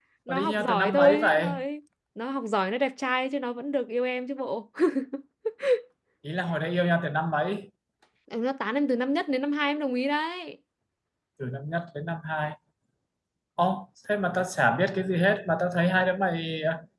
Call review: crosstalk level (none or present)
present